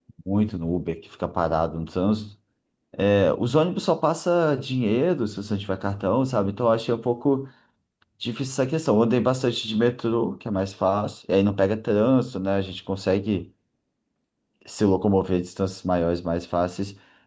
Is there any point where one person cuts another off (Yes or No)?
No